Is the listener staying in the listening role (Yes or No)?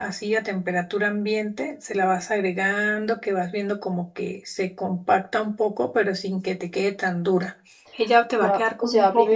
No